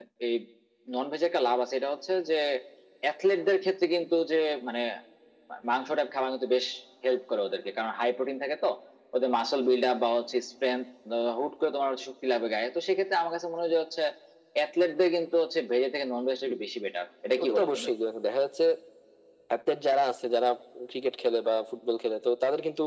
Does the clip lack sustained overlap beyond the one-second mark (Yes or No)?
Yes